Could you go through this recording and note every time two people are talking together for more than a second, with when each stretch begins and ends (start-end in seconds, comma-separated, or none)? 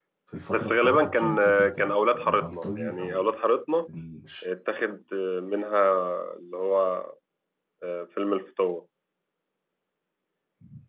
0.5-3.3